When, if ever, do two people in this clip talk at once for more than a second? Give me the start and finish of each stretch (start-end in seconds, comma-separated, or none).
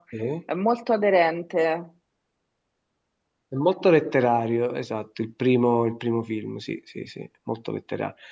none